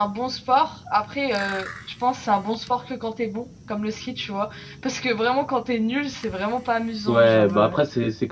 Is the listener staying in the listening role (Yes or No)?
No